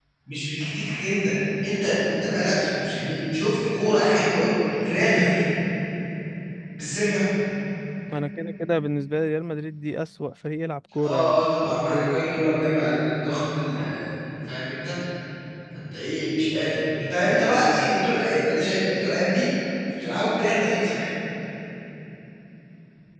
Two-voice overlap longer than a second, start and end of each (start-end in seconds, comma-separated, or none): 11.0-12.4